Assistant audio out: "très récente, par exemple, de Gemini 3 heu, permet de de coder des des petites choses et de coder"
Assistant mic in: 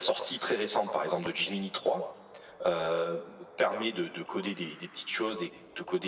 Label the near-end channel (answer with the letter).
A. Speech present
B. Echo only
B